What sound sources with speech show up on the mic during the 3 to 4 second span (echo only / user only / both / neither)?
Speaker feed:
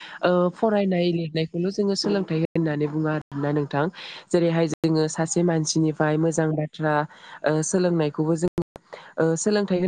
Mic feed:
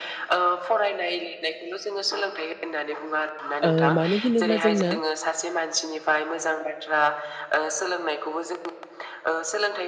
both